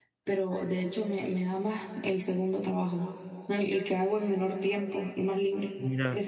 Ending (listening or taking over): listening